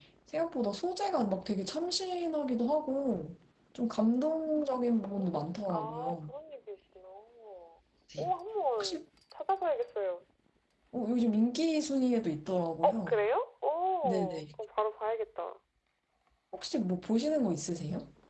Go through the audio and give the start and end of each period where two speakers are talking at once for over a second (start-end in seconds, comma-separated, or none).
5.0-6.3